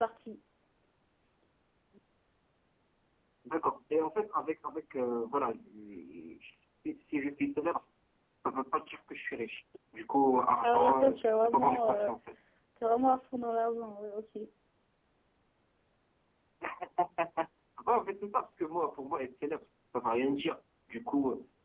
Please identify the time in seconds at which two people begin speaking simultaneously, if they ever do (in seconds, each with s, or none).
10.6 s